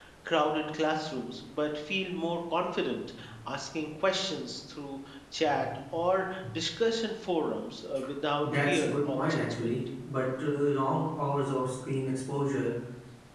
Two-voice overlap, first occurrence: 8.4 s

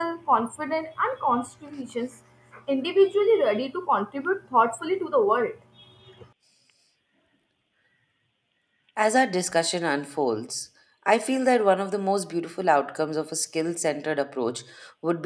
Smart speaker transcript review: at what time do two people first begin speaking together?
none

